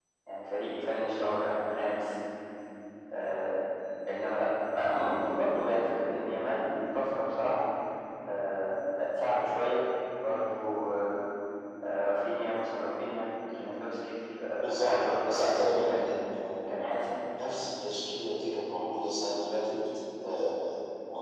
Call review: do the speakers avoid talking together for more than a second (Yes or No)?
No